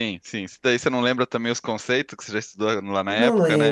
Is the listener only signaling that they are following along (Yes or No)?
No